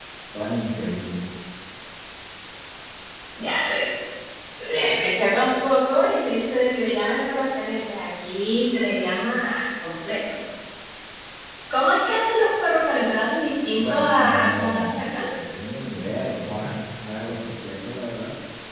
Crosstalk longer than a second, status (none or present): present